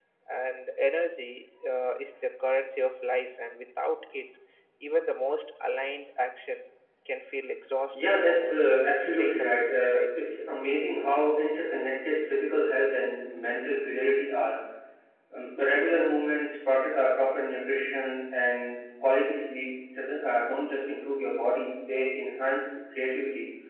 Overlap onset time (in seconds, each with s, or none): 7.9 s